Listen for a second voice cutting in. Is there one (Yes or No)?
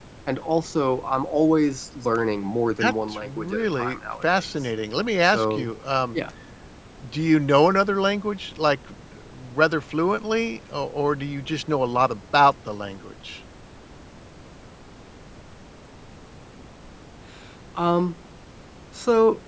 Yes